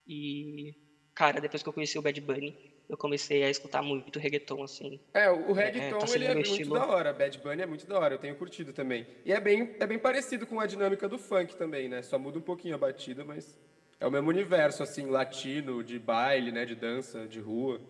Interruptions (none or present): present